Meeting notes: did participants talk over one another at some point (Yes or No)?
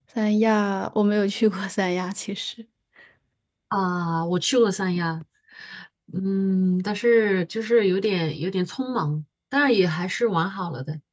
No